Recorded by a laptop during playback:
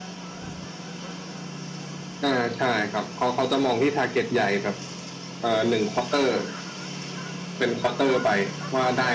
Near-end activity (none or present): none